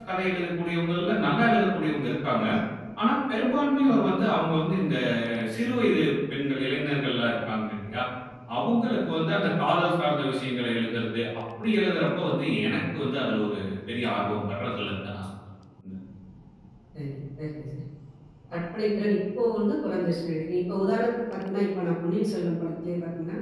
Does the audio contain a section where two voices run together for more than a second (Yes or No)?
No